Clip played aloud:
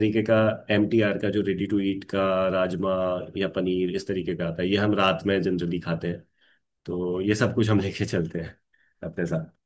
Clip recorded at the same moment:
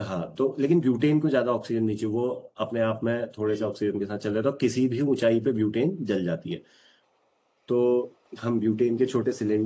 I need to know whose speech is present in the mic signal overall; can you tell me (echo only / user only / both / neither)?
user only